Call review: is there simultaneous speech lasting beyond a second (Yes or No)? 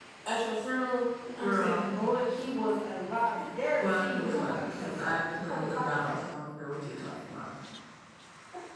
Yes